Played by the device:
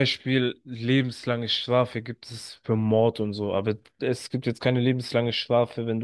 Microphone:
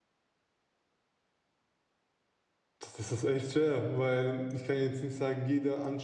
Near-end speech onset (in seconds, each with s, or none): 2.8 s